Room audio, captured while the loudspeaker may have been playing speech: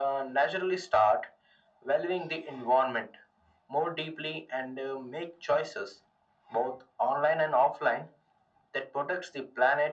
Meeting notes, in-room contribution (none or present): none